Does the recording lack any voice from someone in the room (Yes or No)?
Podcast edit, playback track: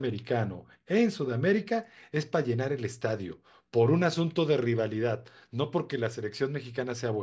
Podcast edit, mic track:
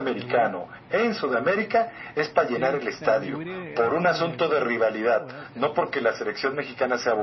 No